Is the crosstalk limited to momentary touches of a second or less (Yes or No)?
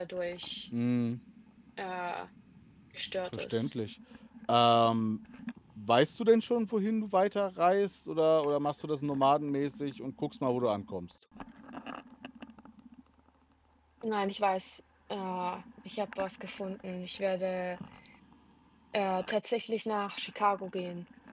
Yes